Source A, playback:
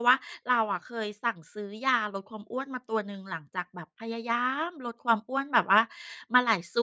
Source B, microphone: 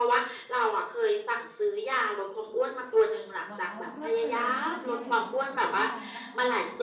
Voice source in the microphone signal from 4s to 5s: both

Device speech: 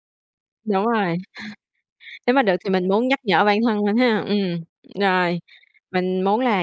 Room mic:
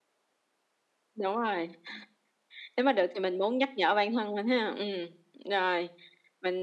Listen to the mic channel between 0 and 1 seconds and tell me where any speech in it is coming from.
neither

